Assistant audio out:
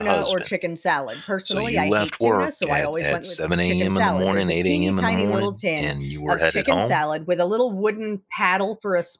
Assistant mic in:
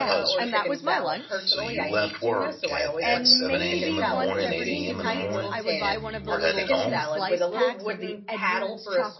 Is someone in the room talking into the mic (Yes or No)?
Yes